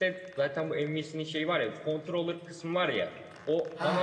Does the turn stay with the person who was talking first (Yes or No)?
Yes